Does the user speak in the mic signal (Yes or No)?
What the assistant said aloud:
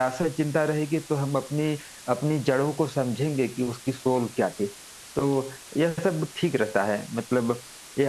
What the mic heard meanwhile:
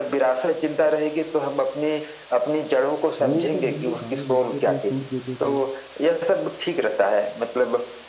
Yes